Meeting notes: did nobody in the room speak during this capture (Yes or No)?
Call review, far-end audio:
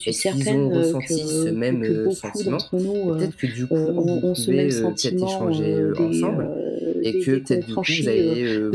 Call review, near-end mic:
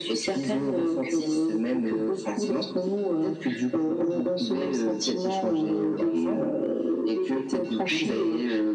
Yes